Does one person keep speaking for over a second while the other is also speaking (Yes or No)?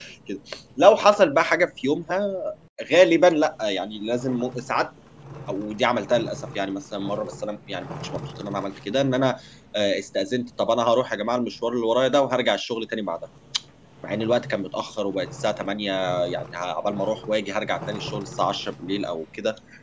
No